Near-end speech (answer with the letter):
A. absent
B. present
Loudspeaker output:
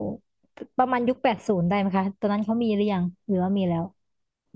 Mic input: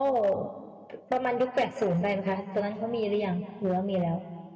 A